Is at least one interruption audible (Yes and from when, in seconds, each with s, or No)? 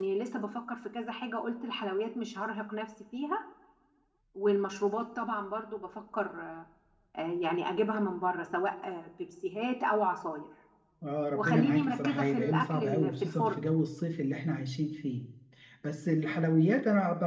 Yes, from 11.4 s